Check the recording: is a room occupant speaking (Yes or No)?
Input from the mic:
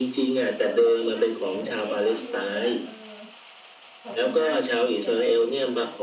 Yes